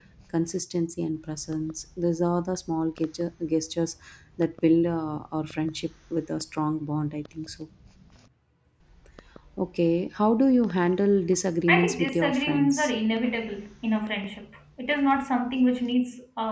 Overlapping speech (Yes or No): Yes